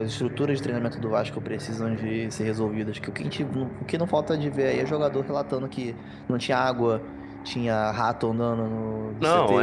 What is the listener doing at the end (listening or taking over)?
taking over